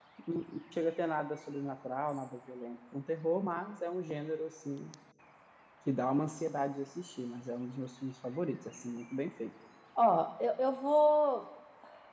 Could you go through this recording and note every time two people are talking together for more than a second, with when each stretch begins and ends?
none

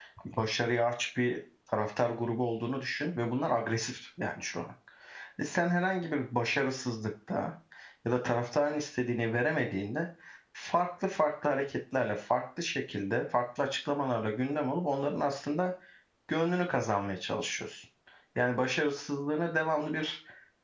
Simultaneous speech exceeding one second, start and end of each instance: none

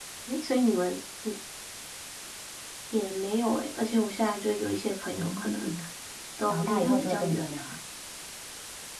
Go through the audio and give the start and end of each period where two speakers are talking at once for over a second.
6.5-7.8

